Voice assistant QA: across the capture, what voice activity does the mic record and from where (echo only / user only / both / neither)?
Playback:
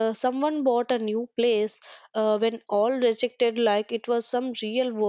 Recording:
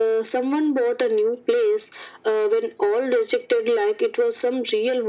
echo only